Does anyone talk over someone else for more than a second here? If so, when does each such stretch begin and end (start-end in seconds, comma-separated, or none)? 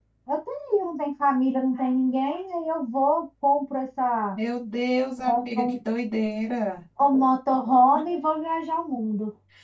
none